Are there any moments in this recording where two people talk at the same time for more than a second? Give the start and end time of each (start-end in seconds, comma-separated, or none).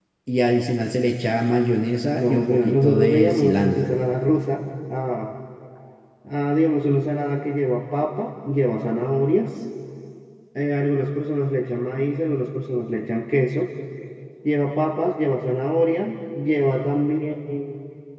2.1-4.0